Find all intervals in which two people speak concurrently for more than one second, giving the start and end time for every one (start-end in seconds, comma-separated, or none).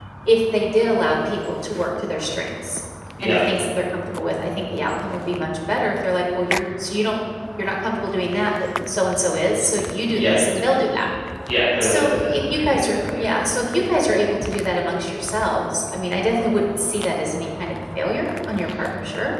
11.8-13.3